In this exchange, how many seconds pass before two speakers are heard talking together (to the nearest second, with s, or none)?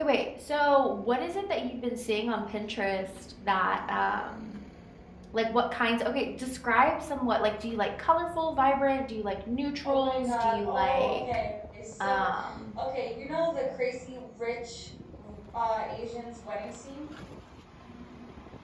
10 s